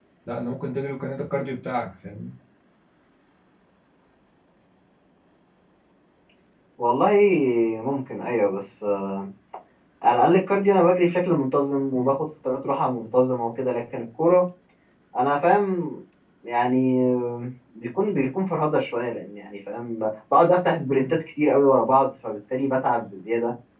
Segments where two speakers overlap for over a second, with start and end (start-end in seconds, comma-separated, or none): none